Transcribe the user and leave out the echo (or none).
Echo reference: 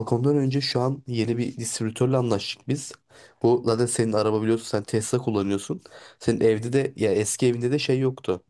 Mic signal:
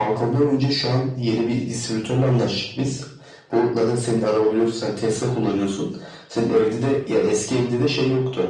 none